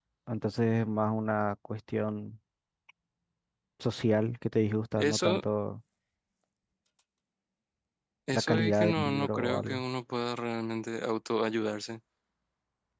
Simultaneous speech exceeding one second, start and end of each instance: 8.3-9.8

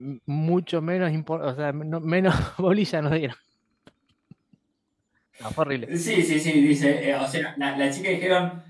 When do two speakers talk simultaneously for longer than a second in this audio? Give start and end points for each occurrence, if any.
none

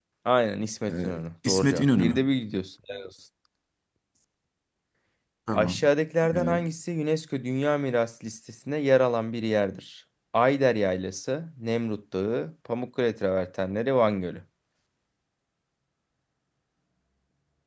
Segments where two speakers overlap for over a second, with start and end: 0.9-2.2

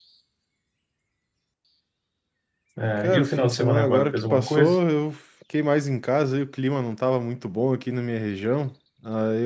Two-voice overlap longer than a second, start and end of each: 3.0-4.7

